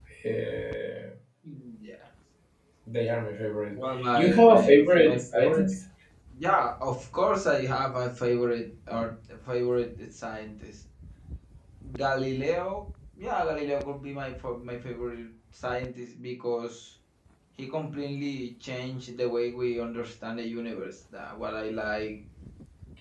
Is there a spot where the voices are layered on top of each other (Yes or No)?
Yes